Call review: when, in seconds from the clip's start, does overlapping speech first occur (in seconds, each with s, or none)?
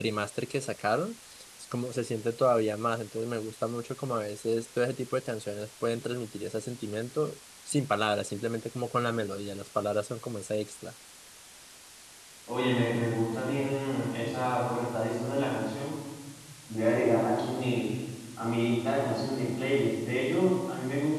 none